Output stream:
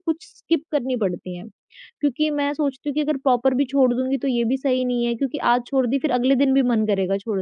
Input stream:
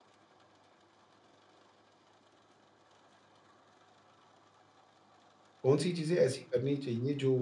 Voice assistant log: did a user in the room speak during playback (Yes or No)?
Yes